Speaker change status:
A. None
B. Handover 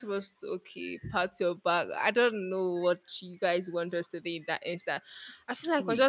A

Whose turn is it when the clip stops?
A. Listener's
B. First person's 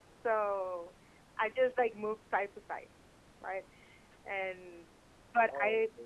B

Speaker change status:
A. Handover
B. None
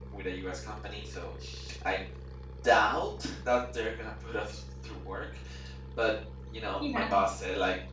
B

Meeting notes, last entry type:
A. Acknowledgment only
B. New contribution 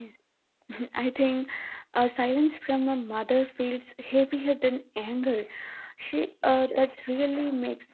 A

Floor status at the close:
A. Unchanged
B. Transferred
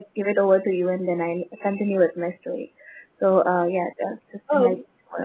B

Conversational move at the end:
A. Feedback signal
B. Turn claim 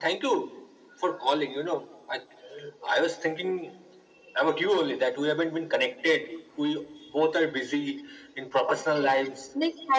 B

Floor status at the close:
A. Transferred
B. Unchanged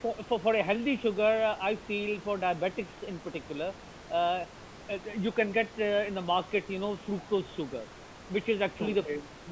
B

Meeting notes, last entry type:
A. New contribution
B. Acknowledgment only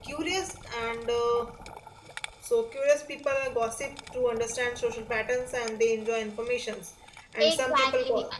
A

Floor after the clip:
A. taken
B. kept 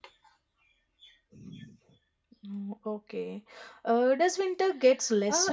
A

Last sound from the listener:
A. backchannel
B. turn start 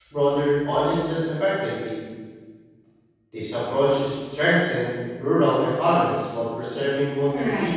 B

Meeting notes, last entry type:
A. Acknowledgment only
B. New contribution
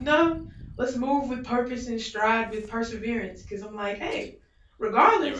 A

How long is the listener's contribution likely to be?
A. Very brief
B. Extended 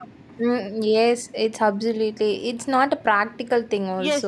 B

